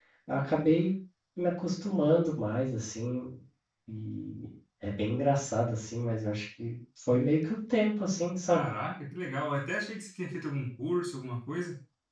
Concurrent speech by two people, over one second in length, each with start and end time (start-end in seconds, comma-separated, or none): none